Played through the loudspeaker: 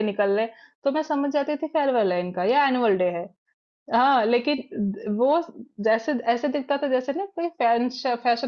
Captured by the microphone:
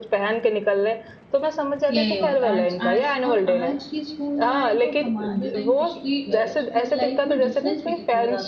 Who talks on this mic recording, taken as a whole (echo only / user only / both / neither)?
both